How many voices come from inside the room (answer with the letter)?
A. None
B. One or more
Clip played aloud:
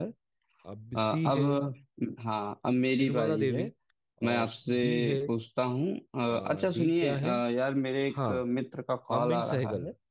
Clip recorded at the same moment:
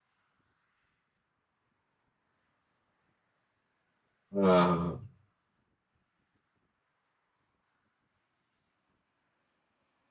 B